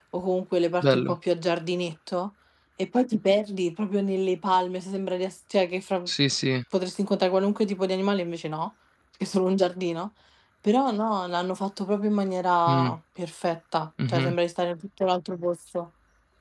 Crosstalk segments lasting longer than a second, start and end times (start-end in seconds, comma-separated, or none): none